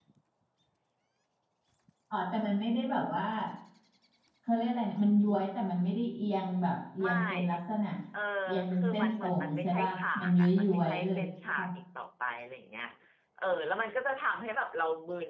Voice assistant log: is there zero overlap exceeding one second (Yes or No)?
No